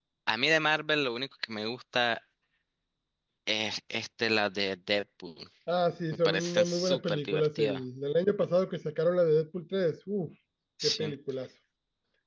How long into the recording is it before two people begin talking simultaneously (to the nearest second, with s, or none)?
6 s